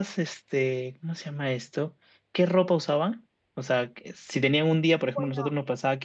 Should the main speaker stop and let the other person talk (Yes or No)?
No